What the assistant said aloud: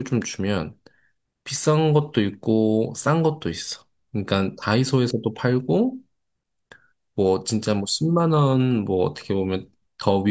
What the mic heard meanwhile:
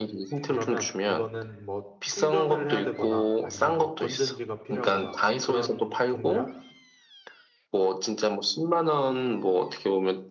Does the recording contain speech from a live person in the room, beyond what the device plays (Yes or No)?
Yes